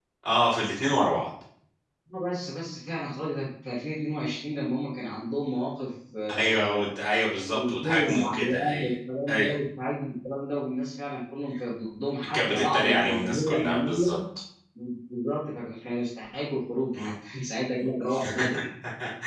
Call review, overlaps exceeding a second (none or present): present